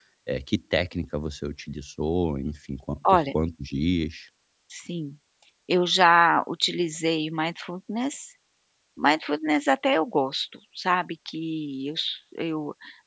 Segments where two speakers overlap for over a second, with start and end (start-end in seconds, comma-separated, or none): none